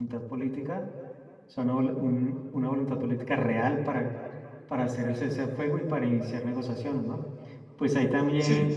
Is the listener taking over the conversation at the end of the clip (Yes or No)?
No